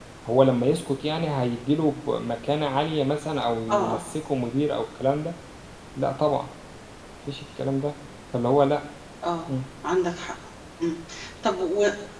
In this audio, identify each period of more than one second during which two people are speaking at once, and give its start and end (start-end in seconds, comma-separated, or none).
none